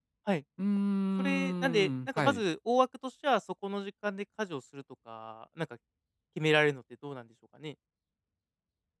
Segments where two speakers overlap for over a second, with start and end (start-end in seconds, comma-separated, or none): 1.2-2.4